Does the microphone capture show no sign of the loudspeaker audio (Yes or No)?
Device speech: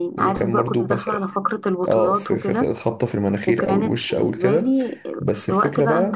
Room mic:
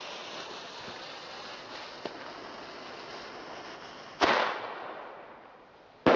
Yes